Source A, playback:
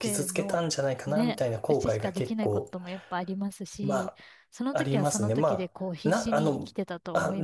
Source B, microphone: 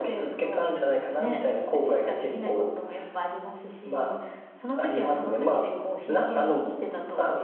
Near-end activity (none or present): none